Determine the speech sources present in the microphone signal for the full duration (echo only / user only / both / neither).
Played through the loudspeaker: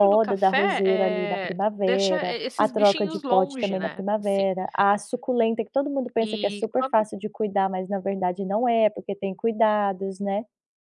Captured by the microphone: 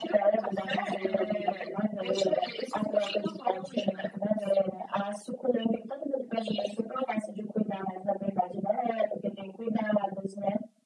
echo only